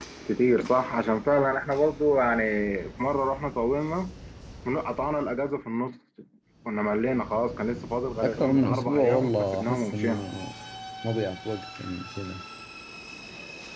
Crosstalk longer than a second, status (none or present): present